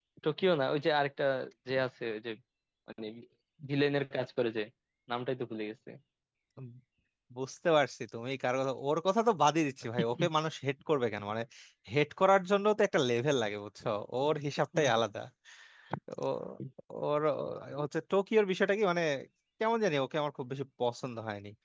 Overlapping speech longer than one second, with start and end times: none

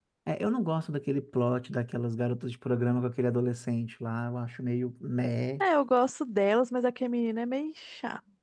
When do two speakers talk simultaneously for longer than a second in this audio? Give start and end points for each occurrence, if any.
none

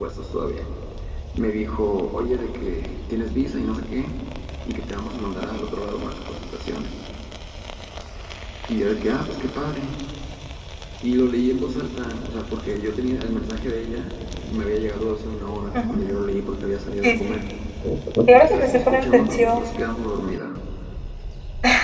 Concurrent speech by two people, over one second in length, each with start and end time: 18.4-19.6

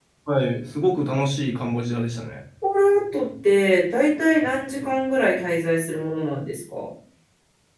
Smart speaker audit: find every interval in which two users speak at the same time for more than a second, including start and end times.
none

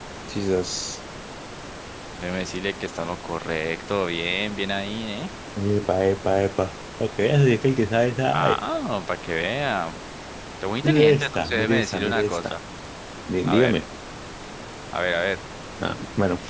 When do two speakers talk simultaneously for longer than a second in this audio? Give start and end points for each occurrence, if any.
10.8-12.6

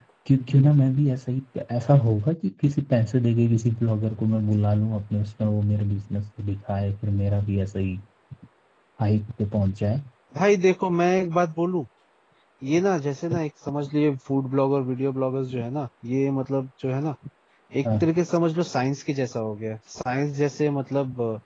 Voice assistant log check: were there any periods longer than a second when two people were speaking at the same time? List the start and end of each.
none

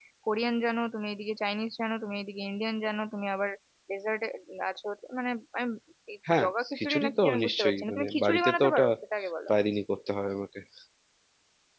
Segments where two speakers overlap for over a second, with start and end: 6.3-8.9

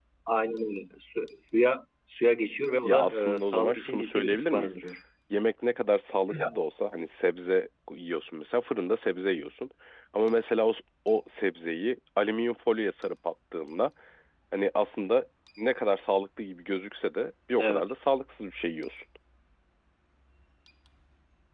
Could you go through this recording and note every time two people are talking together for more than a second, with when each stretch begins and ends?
2.8-4.8

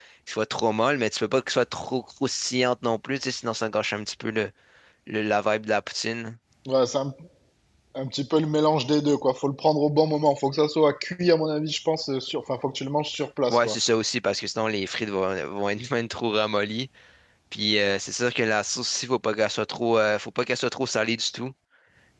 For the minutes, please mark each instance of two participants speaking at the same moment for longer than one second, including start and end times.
none

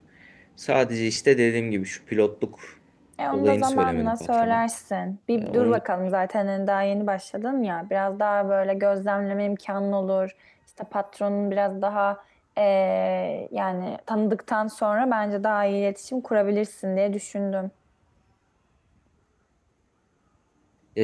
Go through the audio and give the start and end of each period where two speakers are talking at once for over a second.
3.3-4.6

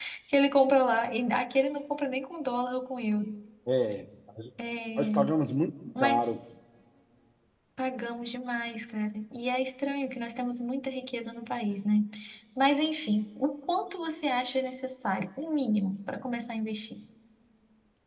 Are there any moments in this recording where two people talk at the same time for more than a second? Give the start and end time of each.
none

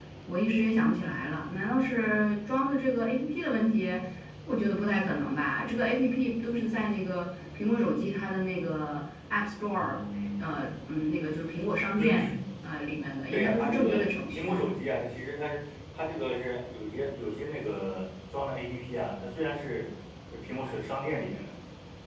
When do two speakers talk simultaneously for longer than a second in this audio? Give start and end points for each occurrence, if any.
13.3-14.5

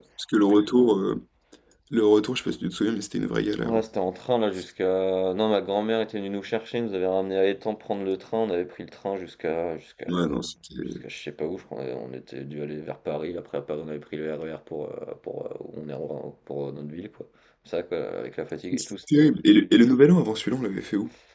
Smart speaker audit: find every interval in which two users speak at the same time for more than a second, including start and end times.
none

